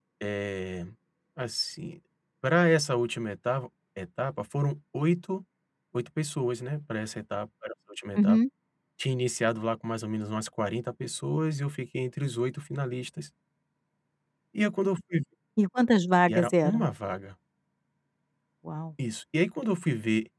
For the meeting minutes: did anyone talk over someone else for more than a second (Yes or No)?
No